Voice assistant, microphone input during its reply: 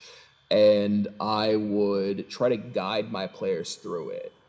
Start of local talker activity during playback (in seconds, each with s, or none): none